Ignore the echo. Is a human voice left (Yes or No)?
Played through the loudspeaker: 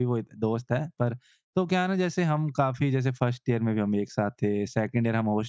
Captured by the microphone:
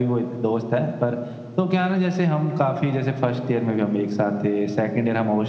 No